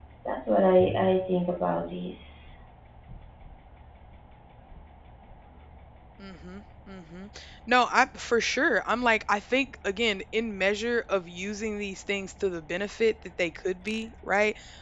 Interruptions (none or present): none